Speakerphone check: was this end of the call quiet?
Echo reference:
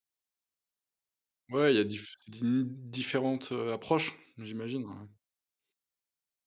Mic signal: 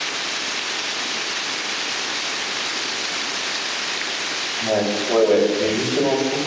No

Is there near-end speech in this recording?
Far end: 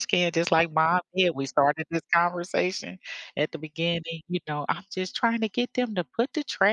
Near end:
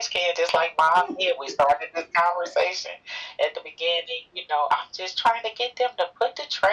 Yes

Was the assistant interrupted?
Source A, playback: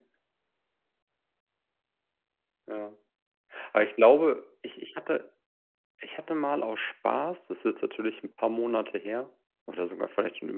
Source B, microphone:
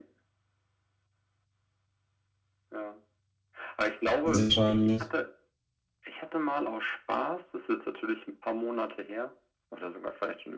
Yes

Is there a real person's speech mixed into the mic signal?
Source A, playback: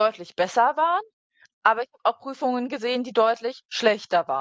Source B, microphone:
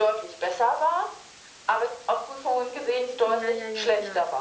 Yes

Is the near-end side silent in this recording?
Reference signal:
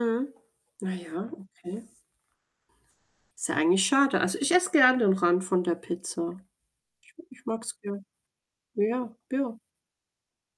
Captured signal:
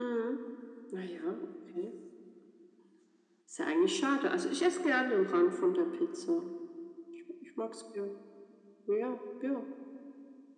Yes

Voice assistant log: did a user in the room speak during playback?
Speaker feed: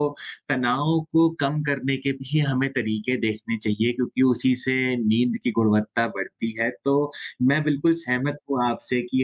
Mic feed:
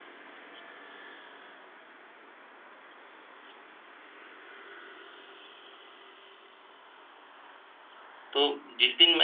Yes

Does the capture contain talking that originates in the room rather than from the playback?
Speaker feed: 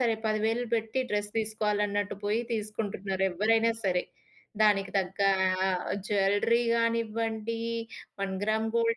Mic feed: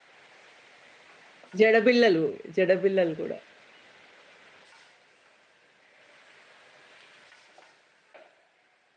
Yes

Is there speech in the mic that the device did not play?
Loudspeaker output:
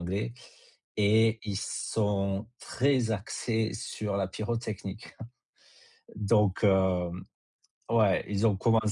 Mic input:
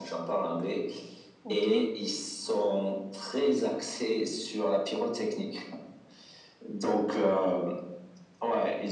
Yes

